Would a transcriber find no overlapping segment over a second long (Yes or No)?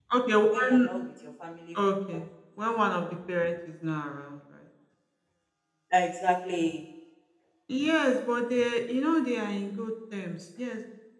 Yes